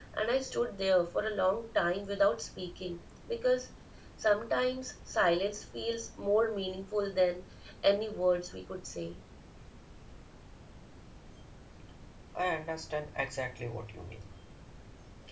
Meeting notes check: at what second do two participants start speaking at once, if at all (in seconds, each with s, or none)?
none